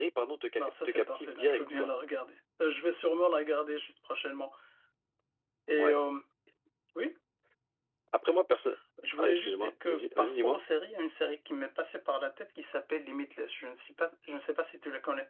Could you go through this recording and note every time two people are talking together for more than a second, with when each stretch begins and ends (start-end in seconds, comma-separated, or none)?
0.6-1.9, 9.2-10.6